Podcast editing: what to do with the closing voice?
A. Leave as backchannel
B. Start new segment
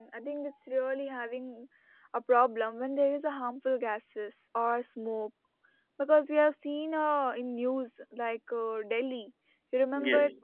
A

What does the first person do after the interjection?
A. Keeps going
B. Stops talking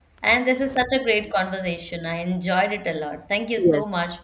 B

